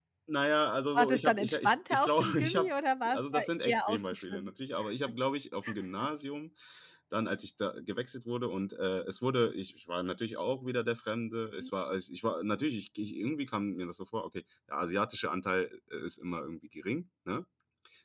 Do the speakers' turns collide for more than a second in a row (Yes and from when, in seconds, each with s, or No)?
Yes, from 0.9 s